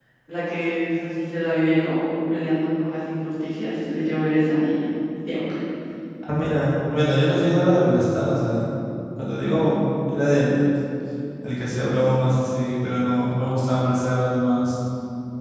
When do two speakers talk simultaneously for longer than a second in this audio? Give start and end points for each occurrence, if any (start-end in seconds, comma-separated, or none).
none